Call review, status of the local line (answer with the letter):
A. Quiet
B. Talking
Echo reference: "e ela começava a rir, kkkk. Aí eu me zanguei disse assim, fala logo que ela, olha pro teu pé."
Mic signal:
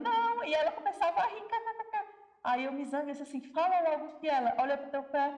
A